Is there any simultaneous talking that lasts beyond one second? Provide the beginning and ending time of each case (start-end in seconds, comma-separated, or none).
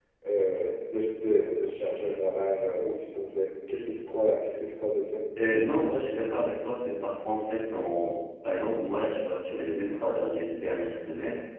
none